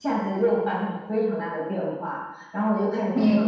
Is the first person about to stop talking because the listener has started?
No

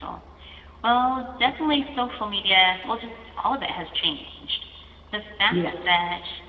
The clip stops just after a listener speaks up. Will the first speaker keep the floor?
Yes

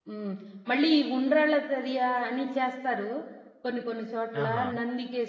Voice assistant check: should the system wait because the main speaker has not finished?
Yes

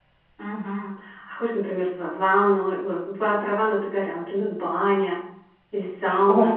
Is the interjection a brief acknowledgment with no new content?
No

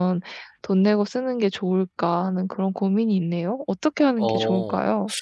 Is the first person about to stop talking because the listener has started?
Yes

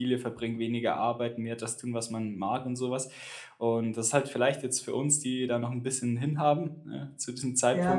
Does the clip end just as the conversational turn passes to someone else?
No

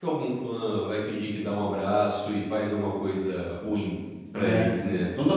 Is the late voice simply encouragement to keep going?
No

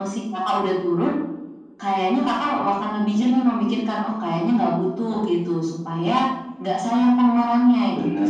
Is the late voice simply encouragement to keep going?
No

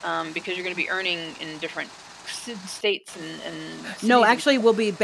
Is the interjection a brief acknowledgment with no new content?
No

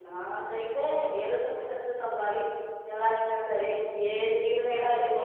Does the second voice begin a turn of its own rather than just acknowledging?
Yes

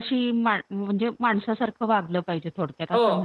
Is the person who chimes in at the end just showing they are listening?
No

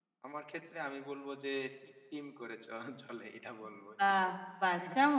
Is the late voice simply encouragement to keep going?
No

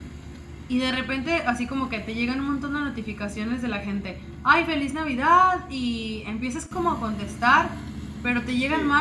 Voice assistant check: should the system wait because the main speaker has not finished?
Yes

